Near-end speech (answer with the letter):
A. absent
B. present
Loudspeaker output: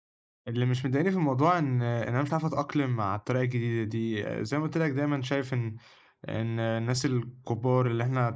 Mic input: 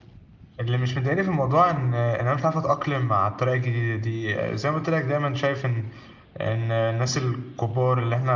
A